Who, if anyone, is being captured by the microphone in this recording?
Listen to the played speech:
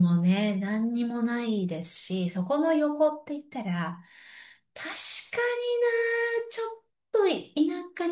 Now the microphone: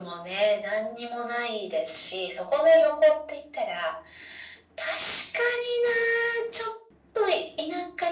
echo only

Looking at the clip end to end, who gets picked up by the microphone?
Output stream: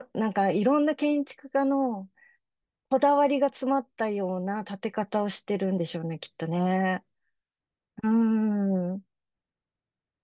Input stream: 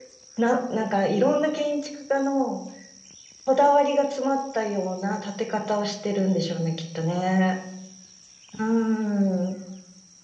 echo only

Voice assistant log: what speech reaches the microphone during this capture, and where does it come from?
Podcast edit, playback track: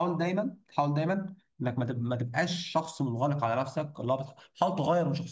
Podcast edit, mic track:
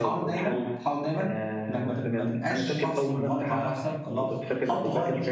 both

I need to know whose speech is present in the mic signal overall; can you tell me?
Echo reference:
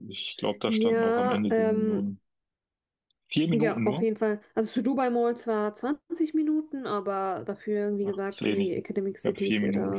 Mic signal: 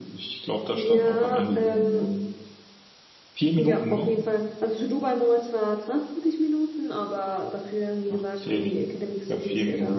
echo only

